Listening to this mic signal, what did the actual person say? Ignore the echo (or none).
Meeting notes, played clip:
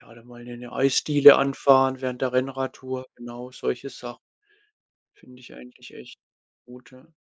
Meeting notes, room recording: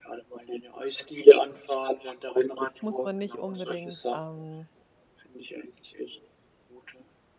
muss man nicht unbedingt, ähm,